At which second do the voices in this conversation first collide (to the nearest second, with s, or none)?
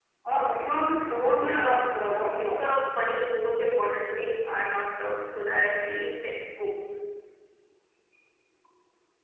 1 s